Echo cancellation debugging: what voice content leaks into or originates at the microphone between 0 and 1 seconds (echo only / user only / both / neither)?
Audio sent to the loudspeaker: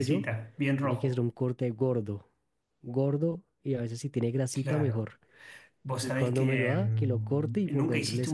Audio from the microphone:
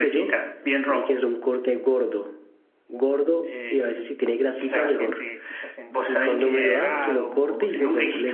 echo only